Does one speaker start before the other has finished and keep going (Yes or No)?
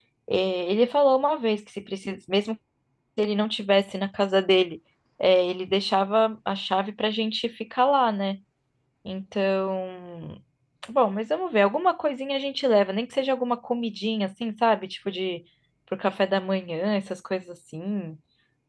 No